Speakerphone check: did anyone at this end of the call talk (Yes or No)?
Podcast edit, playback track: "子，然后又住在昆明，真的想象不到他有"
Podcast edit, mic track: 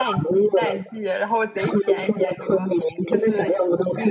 Yes